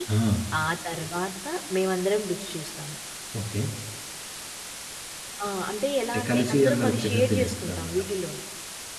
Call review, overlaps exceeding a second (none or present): present